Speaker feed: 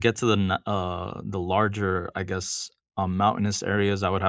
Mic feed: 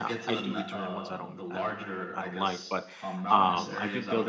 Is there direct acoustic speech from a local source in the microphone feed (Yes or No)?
Yes